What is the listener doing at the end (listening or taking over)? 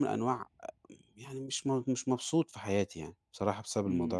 taking over